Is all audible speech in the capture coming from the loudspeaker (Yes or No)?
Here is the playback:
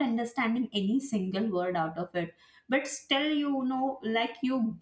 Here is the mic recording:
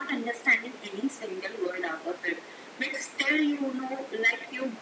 Yes